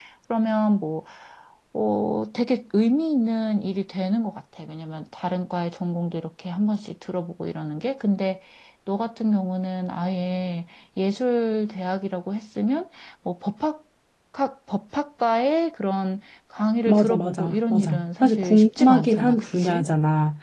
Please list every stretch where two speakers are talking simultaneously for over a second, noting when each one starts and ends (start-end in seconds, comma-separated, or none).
16.9-19.9